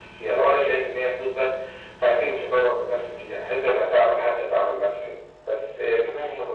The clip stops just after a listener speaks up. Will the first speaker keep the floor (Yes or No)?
No